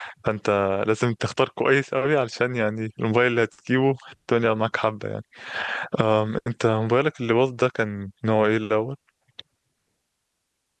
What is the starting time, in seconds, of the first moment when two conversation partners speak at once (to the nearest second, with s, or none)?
none